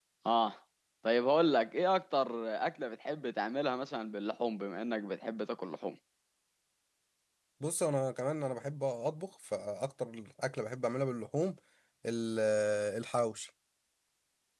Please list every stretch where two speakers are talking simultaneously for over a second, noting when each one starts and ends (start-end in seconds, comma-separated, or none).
none